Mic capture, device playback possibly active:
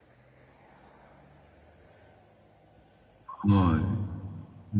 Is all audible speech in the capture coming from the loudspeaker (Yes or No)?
No